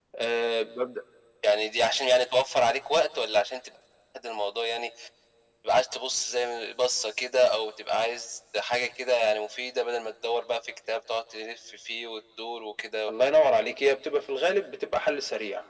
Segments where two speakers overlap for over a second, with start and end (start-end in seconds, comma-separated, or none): none